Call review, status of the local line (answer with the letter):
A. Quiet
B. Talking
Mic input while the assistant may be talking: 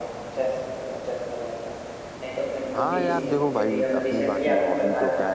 B